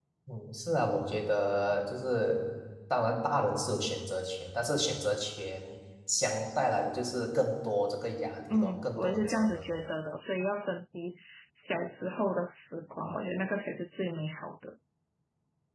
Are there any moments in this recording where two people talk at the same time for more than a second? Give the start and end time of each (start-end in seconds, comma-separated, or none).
8.5-9.8